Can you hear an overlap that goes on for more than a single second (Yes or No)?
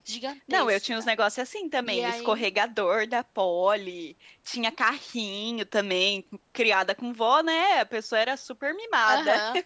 No